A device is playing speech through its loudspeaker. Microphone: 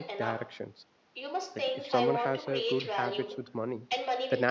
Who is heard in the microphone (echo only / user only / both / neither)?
both